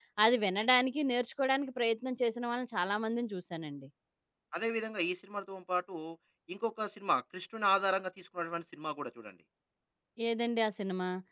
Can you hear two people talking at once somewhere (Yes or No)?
No